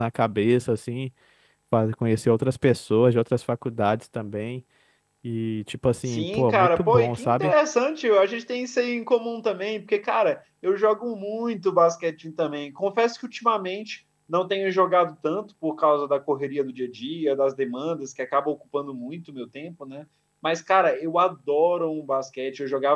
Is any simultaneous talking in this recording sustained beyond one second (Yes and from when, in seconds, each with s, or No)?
Yes, from 6.1 s